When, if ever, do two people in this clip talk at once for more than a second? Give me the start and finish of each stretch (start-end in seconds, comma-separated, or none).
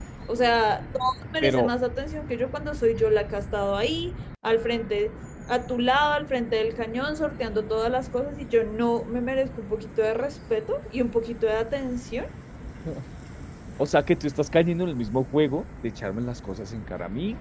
none